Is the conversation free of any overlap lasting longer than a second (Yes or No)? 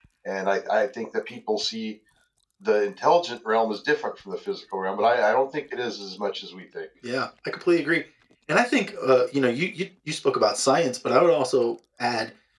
Yes